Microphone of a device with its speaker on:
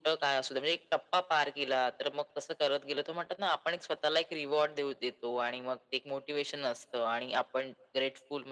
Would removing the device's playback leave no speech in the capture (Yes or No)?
Yes